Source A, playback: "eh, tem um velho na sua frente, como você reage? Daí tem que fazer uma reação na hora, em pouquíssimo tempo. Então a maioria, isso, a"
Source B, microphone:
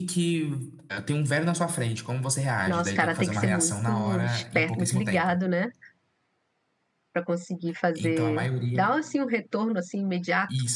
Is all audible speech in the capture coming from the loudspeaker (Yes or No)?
No